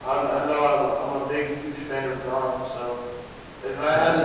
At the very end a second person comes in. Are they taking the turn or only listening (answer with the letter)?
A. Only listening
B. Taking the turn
A